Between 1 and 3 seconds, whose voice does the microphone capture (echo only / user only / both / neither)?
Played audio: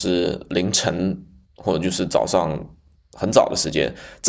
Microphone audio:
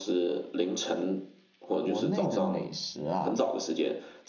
both